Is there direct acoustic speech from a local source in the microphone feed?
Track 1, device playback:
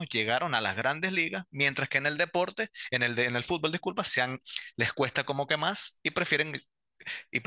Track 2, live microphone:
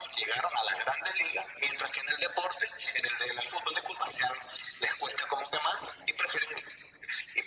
No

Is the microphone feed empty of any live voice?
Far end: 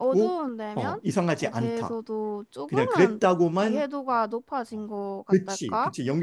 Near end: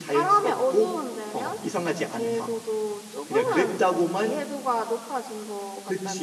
Yes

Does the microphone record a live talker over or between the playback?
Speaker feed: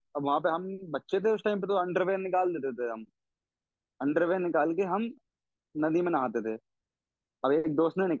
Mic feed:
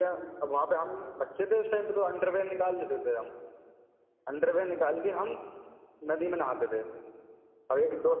No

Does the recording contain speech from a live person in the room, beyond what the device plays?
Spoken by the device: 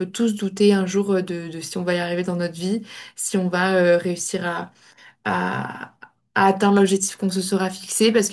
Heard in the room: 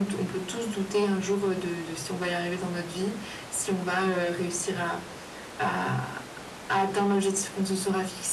No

